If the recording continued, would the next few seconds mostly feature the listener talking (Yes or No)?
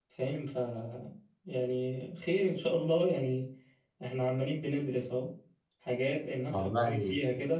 No